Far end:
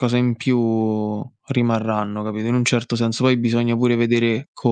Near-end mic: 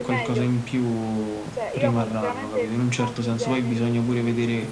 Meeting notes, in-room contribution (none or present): present